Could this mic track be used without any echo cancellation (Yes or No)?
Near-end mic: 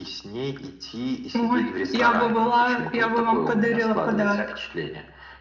No